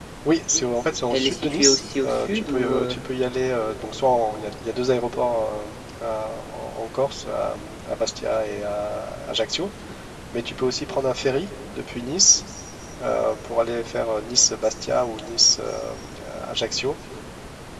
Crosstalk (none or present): present